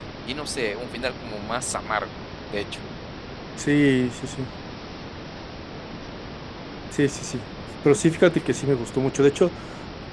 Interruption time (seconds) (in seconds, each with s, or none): none